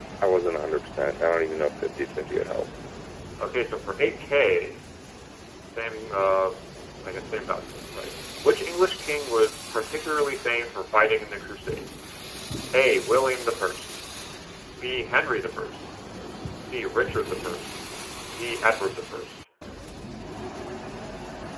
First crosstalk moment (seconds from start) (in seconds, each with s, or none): none